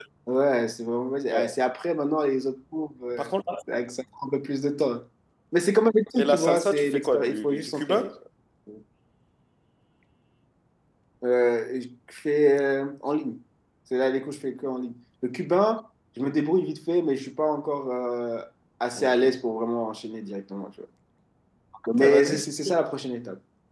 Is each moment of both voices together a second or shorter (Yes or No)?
No